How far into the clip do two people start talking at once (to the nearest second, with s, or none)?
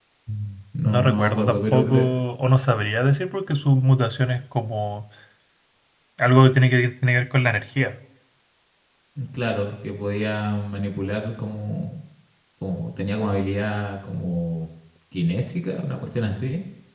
1 s